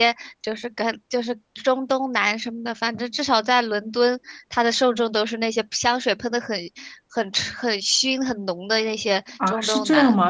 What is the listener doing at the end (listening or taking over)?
taking over